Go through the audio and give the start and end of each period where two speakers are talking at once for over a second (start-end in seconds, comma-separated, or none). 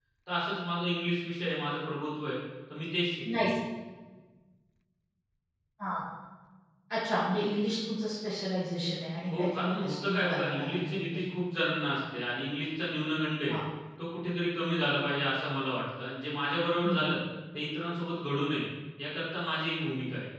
9.4-11.2